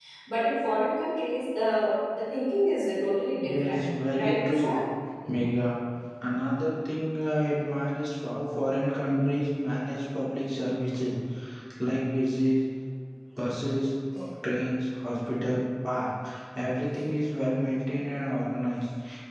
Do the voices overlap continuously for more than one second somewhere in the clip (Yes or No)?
Yes